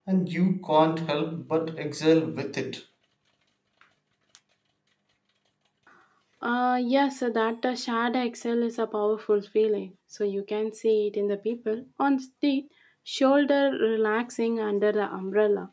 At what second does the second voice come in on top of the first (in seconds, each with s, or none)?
none